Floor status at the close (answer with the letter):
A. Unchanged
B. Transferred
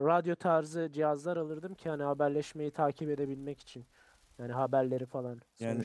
B